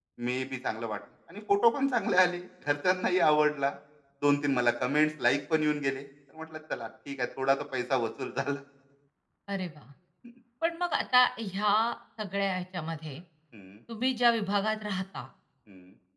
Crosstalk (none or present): none